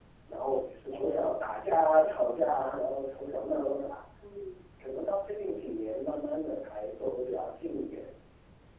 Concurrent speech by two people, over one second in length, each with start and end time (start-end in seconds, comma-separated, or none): none